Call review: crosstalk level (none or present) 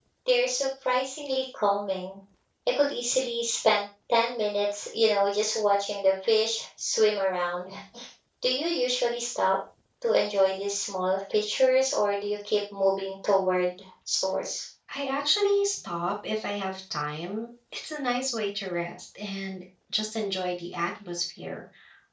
none